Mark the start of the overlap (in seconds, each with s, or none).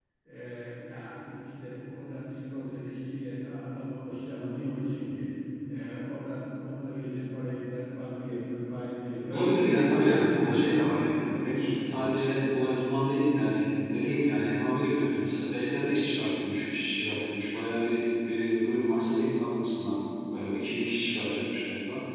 9.3 s